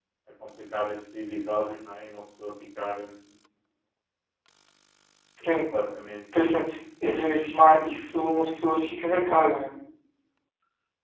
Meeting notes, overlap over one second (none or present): none